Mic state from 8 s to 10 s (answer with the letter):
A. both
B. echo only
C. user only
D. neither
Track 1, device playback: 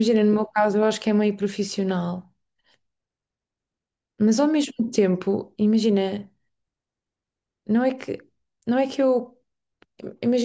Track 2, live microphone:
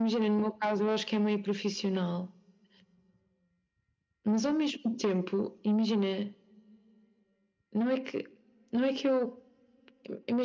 B